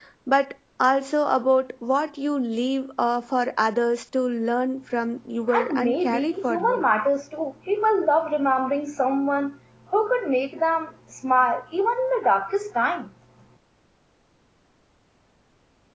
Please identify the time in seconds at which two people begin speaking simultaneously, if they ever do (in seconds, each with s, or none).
5.5 s